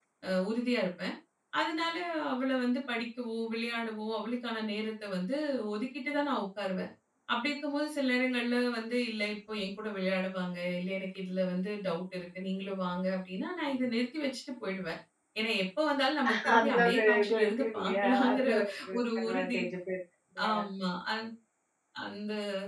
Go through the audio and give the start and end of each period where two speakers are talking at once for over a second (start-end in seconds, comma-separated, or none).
16.6-18.5